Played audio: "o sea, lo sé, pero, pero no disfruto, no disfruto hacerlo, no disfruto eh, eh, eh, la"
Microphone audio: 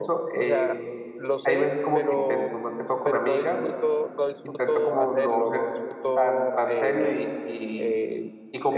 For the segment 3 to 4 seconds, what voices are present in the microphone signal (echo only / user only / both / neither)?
both